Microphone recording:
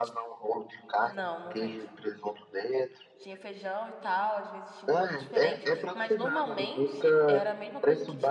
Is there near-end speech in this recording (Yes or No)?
Yes